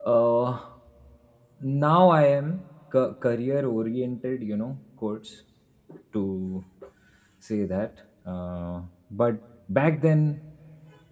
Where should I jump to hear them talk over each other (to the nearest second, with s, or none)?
none